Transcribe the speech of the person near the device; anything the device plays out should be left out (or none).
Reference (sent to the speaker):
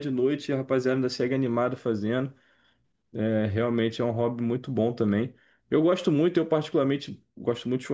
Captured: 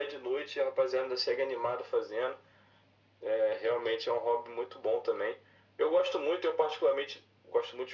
none